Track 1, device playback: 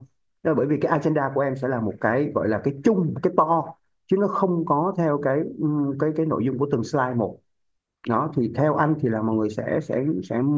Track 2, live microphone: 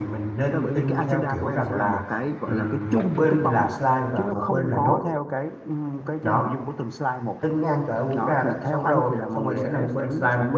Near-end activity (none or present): present